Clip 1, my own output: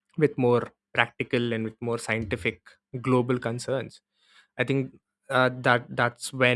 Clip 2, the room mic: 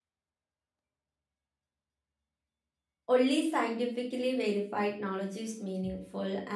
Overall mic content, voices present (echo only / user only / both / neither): user only